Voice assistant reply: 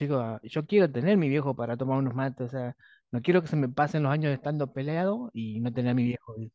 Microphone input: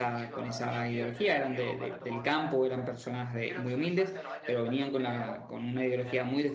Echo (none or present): present